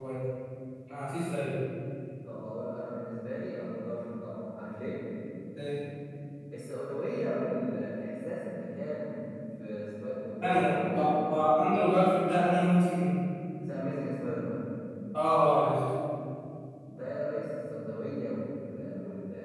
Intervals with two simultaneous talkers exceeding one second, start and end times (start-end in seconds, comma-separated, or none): 10.4-11.6